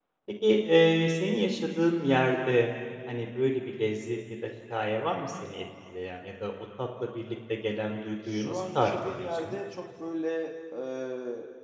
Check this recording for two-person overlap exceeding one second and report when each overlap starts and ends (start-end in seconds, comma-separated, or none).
8.3-9.6